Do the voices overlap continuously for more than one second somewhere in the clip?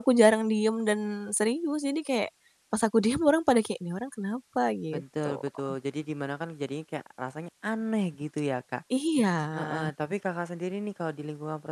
No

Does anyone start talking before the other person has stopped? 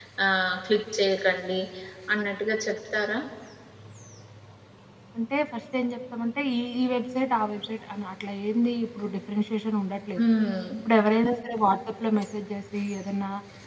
No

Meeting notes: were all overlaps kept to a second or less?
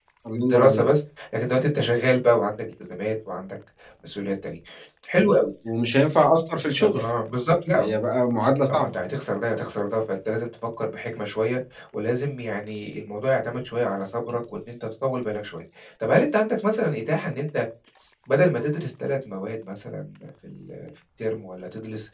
Yes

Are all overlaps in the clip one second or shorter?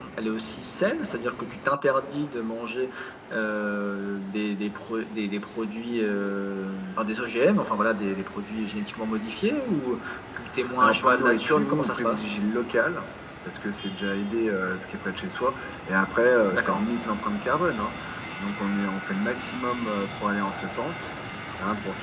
No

